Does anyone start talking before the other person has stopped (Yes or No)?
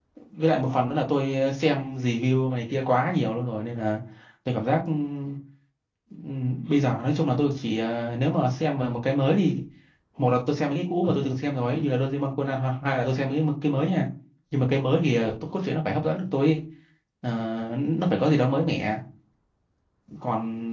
No